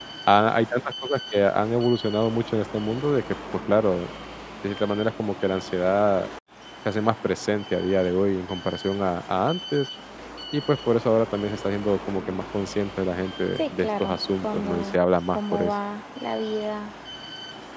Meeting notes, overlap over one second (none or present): present